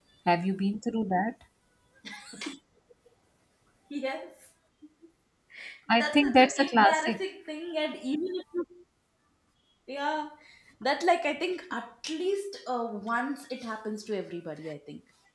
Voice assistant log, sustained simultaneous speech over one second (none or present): present